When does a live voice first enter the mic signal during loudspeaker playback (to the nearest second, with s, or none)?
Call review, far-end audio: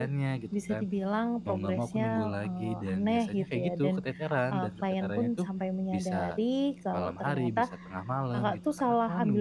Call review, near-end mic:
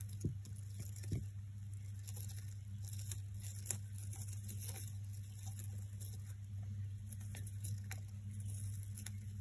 none